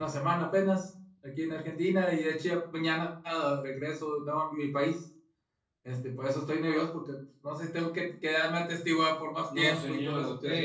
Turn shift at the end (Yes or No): Yes